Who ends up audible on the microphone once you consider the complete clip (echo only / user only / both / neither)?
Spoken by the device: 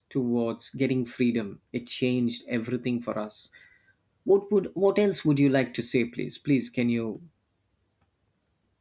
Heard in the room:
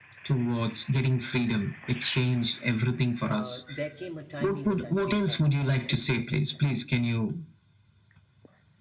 both